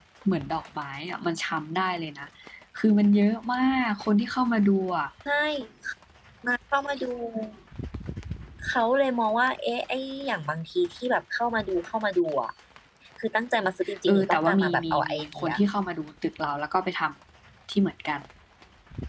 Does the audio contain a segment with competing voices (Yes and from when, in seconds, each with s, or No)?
Yes, from 14.1 s